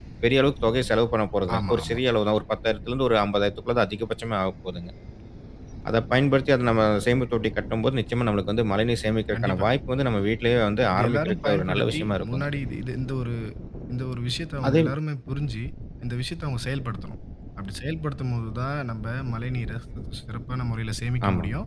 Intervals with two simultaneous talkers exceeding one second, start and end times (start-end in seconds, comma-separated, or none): 10.9-12.4